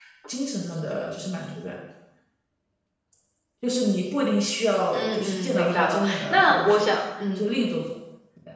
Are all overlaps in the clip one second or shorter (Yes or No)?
No